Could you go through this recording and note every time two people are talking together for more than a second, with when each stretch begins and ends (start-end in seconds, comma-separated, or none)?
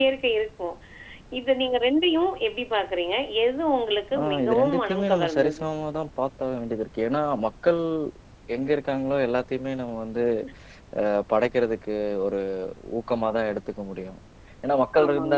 4.2-5.7